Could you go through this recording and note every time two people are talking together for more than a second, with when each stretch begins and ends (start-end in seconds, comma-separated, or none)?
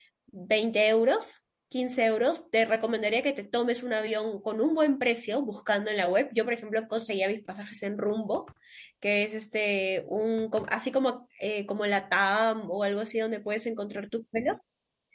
none